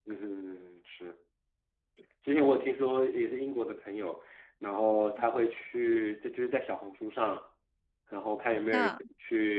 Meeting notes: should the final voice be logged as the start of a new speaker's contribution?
No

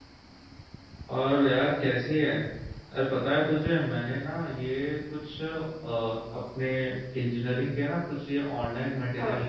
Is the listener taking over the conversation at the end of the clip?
No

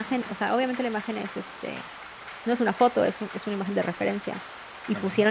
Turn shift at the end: No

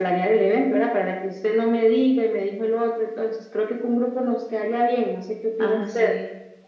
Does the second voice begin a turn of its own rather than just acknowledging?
Yes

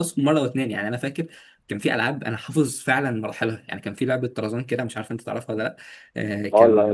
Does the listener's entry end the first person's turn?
Yes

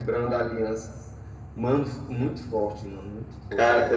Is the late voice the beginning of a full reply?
No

